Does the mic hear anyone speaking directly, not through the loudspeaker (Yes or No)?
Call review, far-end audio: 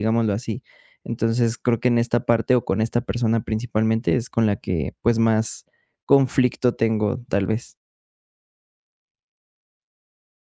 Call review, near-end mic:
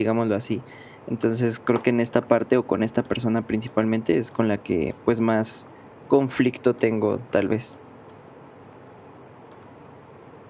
No